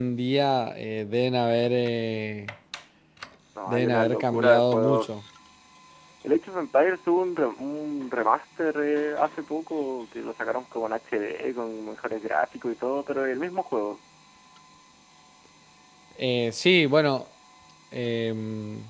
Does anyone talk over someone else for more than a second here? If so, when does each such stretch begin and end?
3.7-5.1

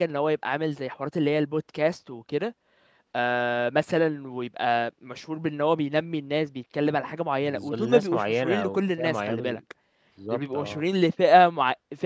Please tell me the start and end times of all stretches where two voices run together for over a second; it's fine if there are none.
7.4-9.6

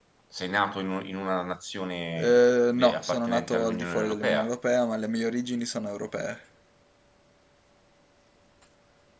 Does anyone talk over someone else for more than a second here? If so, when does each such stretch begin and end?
2.8-4.4

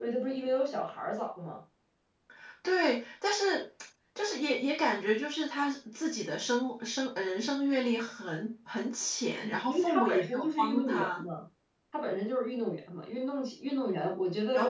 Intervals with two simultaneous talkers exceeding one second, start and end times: 9.4-11.2

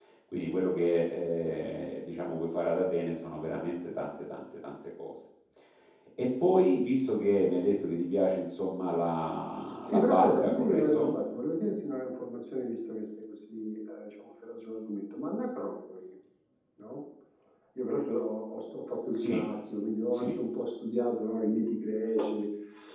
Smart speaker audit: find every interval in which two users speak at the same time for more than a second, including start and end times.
9.9-11.1

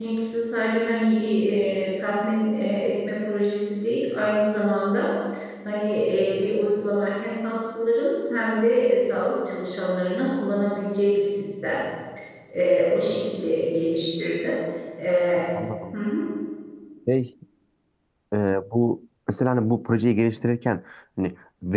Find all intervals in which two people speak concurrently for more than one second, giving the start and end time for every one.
none

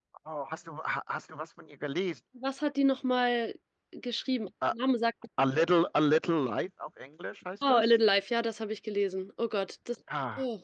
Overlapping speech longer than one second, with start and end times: none

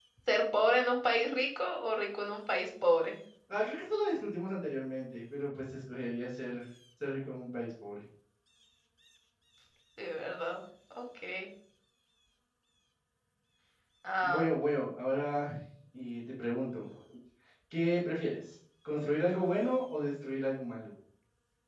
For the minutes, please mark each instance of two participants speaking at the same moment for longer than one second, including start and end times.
none

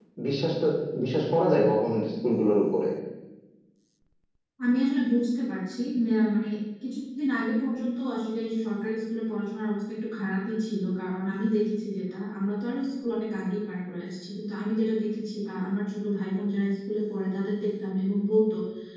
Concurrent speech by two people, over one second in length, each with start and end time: none

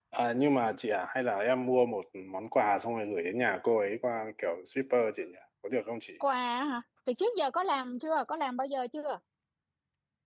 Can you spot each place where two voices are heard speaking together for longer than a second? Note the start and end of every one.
none

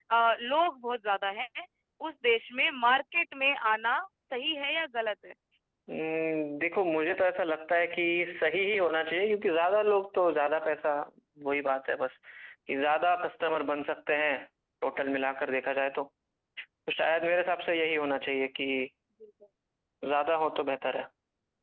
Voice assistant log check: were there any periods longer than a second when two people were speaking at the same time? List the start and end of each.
none

